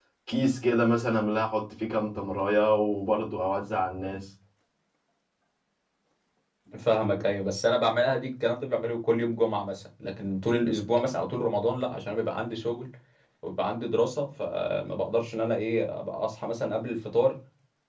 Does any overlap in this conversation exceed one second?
No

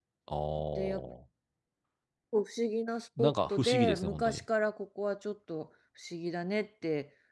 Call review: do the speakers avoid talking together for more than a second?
No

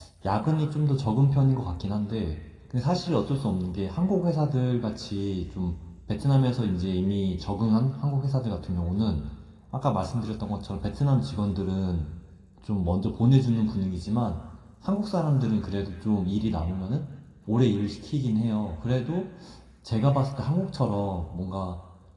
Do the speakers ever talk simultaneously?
No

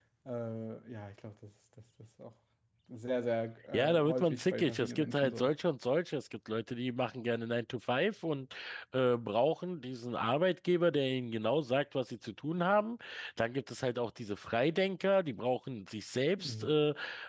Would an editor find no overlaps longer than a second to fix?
No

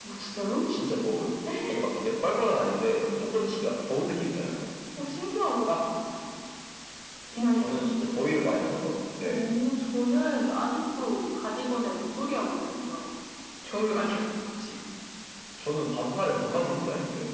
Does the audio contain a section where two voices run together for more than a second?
No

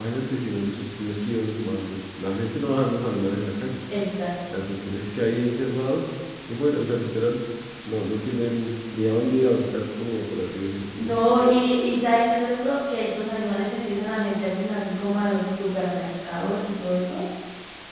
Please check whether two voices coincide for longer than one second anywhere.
No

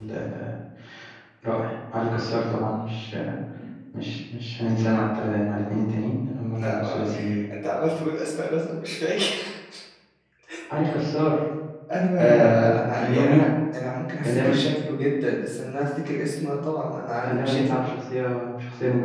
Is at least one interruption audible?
Yes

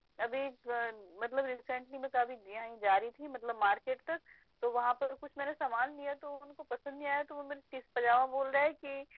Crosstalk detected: No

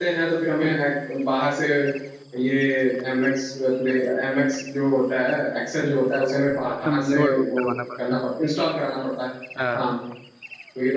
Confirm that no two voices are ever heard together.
No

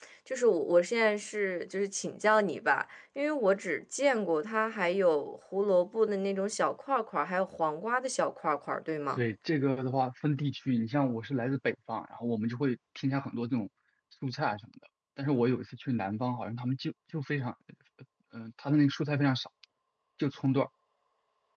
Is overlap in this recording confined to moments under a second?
Yes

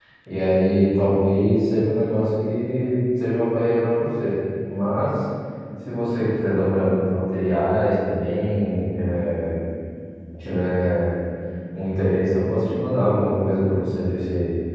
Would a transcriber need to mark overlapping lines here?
No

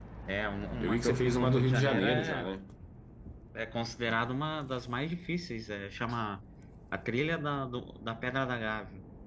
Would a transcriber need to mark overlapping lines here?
Yes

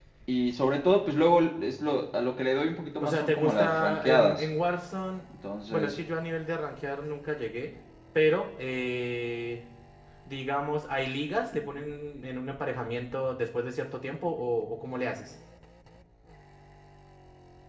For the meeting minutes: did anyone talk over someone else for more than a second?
Yes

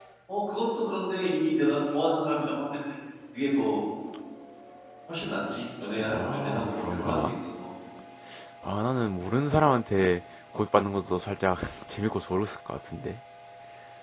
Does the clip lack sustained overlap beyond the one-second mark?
No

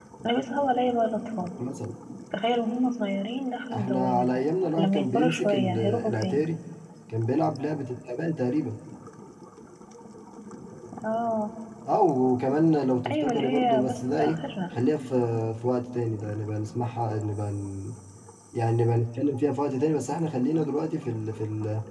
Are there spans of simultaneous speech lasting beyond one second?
Yes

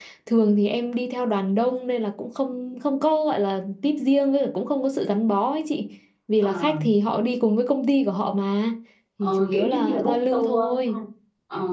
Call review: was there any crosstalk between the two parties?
Yes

